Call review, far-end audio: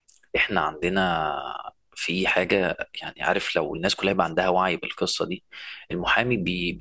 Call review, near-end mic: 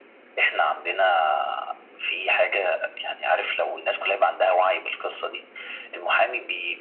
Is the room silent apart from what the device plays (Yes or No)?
Yes